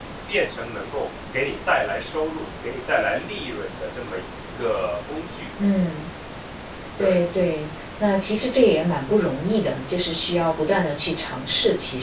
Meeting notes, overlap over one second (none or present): none